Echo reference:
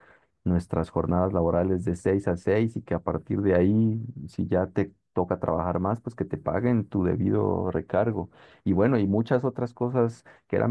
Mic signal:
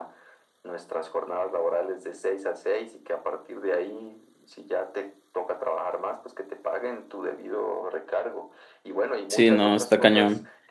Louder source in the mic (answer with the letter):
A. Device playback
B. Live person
B